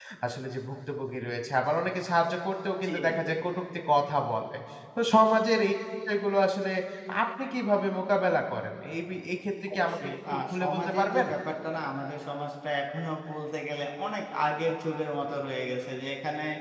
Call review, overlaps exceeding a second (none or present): present